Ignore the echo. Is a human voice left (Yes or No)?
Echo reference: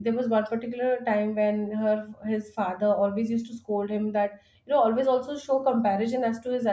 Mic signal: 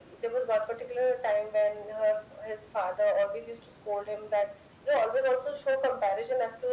No